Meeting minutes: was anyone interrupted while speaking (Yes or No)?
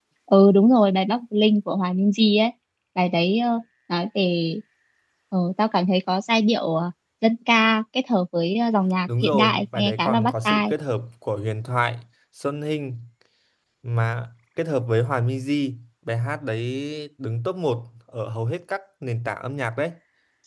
Yes